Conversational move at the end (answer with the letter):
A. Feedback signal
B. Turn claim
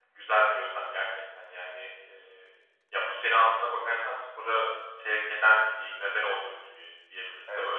B